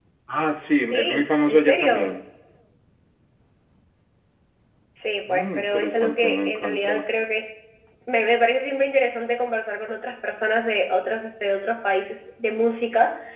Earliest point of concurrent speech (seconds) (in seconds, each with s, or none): 0.8 s